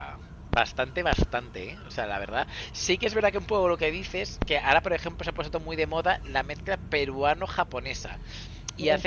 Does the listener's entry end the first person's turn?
No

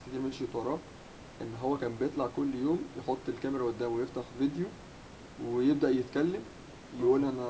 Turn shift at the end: No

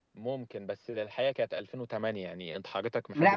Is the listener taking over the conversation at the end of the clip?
Yes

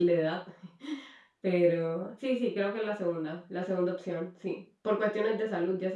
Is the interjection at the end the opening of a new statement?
No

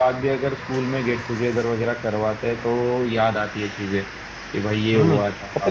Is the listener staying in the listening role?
No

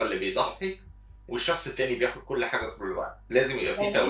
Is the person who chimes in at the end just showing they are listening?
No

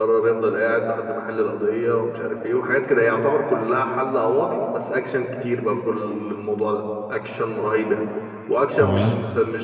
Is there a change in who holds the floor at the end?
No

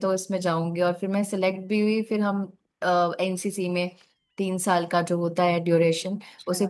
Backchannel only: Yes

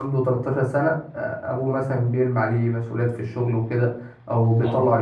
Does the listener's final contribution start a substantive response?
No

